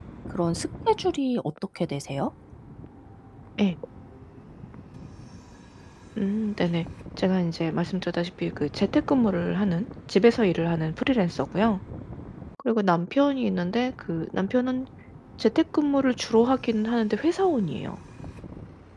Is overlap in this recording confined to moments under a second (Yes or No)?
Yes